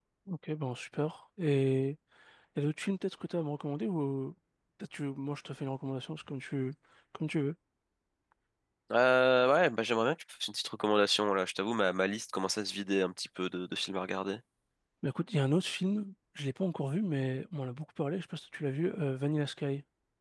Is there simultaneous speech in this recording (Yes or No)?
No